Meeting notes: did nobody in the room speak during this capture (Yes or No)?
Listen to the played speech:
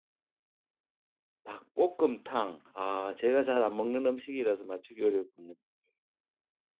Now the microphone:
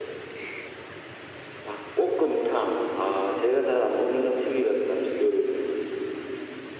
Yes